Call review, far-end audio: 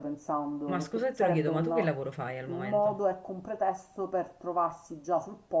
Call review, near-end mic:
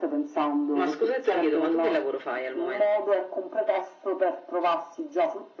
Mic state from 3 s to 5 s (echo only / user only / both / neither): echo only